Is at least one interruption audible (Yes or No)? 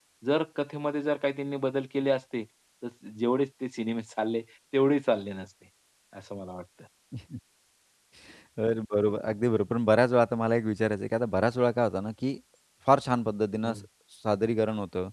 No